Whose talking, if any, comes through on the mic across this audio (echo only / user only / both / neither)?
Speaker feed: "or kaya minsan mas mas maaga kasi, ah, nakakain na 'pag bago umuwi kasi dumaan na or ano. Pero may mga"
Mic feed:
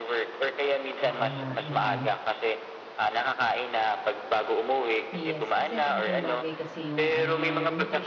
both